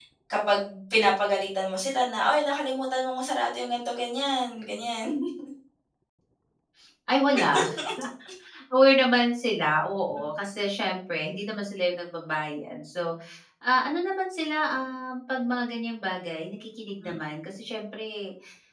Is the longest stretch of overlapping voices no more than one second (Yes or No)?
Yes